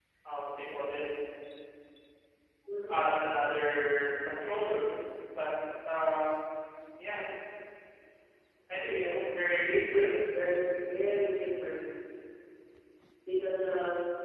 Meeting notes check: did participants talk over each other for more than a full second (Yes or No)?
Yes